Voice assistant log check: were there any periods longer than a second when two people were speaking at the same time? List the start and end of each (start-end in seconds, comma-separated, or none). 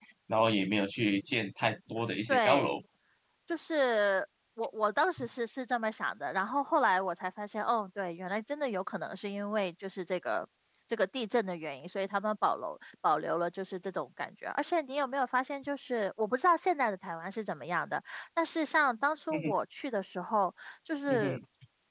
none